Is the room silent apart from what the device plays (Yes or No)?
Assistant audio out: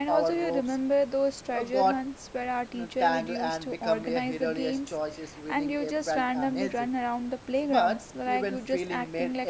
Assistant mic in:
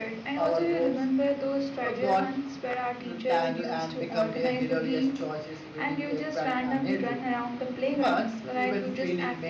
Yes